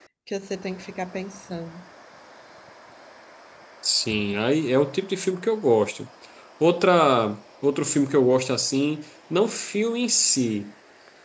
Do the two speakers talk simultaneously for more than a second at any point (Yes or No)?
No